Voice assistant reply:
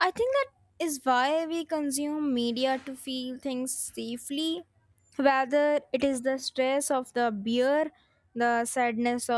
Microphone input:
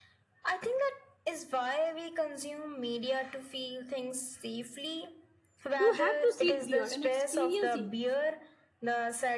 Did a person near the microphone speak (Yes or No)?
Yes